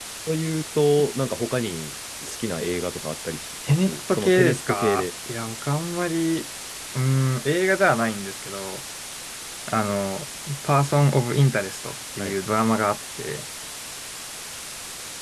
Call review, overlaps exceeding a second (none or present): present